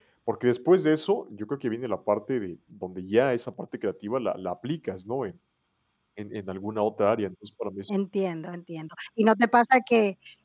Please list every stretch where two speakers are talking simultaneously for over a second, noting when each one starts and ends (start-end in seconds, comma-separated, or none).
none